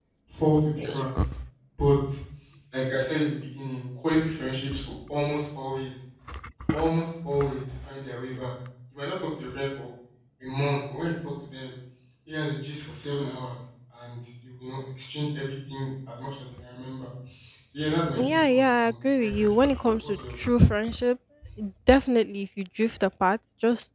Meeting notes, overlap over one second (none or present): present